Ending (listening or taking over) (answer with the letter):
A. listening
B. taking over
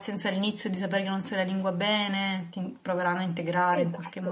B